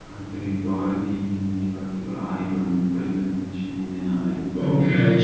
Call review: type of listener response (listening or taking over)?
taking over